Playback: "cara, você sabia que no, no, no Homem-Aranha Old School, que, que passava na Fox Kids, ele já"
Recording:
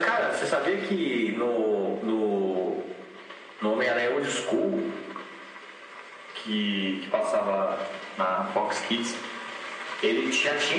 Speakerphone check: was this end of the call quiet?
Yes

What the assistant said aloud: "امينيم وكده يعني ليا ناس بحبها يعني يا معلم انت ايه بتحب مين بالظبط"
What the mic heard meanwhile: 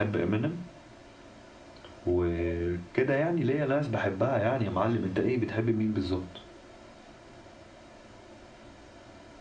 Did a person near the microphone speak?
No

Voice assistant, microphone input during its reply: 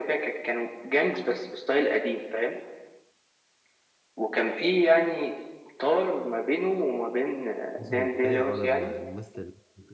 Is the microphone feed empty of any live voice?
No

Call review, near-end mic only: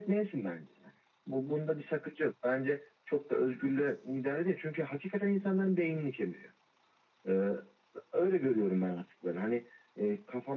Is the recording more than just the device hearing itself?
No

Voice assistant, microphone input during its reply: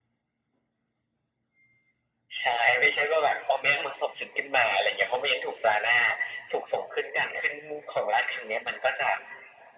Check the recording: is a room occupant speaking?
No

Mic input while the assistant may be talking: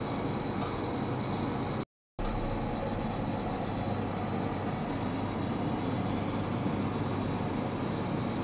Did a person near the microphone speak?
No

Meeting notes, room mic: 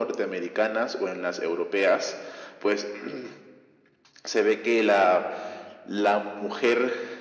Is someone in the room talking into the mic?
No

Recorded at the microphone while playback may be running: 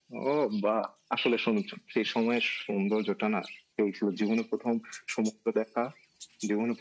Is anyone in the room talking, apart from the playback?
No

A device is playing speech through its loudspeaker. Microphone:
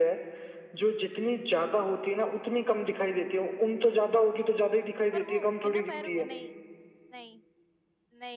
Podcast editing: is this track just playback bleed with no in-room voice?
No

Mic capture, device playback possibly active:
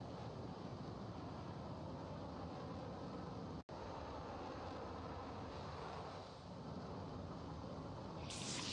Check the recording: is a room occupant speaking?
No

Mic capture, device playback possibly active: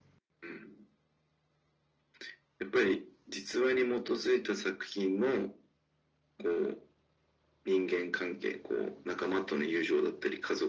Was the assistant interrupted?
No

